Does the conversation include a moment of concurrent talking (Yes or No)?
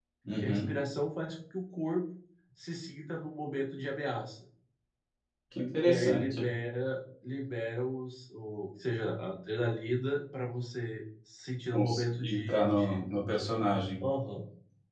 Yes